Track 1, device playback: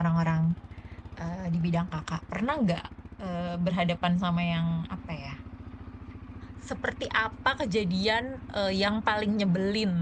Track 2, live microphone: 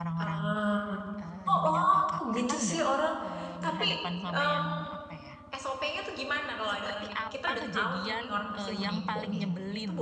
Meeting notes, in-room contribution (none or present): present